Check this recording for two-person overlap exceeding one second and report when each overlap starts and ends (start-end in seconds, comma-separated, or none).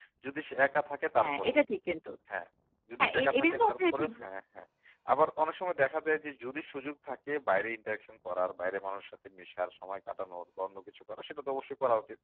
3.0-4.2